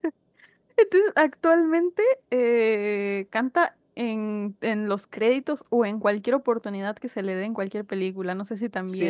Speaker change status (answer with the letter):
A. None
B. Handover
B